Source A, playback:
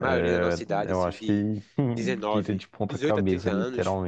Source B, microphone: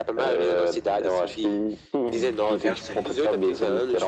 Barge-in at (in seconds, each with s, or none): 2.6 s